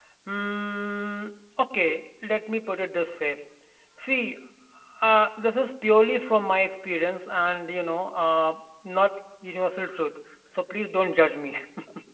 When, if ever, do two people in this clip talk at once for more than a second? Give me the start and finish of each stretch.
none

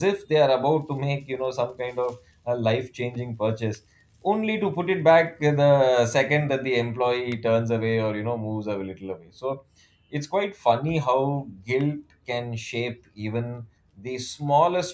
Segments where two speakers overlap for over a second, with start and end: none

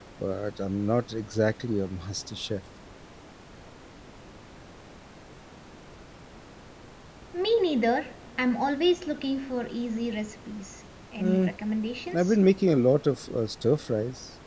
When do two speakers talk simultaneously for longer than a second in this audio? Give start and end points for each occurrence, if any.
none

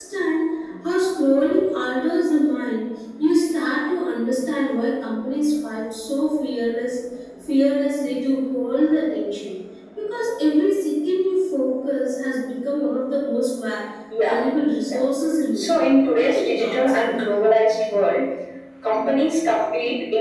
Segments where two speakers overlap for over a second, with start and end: 15.5-17.2

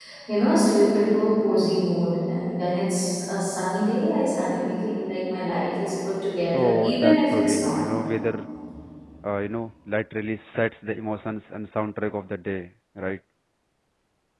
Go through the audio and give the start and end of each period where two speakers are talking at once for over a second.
6.5-7.8

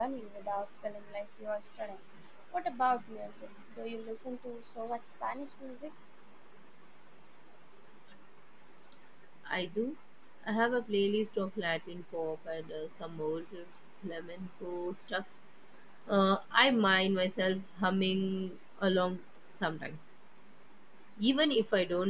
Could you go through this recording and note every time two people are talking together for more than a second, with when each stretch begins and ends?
none

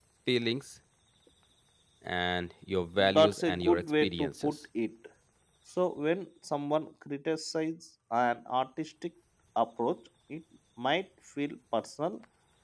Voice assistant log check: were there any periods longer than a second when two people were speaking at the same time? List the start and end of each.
3.1-4.6

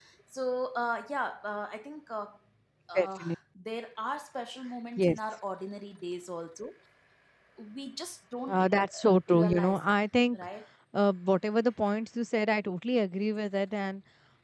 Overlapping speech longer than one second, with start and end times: 8.5-9.9

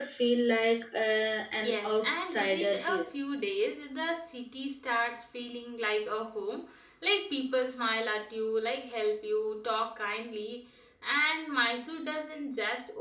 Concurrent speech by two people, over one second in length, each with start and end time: 1.6-3.1

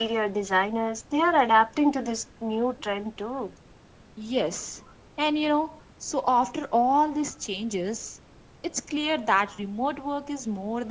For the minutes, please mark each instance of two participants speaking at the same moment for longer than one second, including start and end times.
none

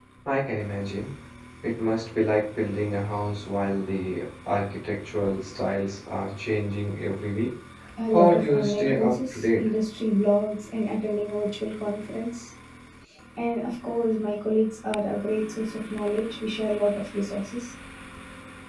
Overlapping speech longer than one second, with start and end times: 8.1-9.7

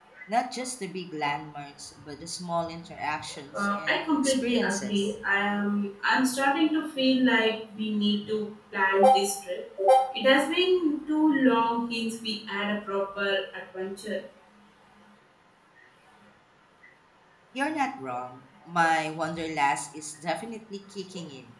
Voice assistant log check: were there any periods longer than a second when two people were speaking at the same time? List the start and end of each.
3.5-5.1

